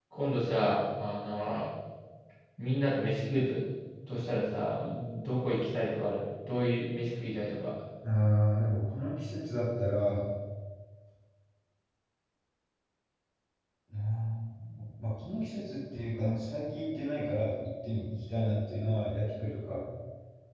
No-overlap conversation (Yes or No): Yes